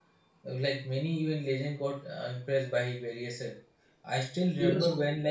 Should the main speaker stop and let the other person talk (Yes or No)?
No